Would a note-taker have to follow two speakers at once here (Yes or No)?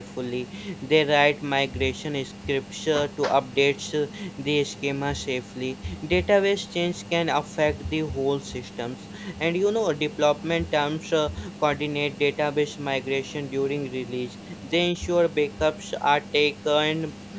No